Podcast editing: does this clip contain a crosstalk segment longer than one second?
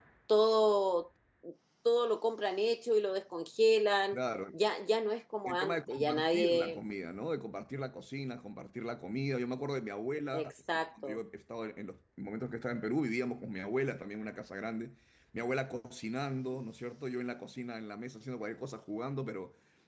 Yes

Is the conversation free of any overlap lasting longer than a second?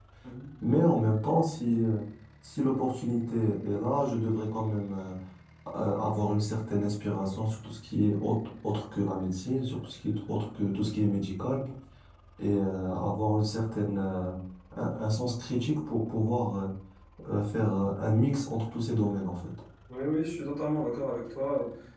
Yes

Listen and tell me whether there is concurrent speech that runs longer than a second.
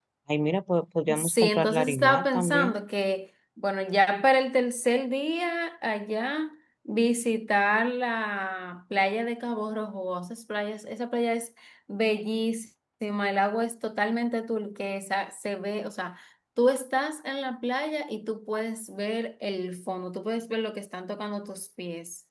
Yes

